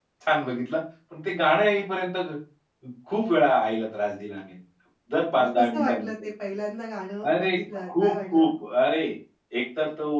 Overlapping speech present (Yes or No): Yes